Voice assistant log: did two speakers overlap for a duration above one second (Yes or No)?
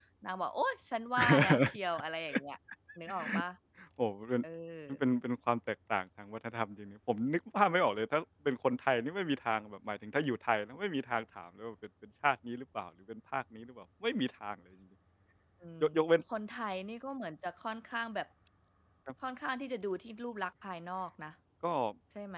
No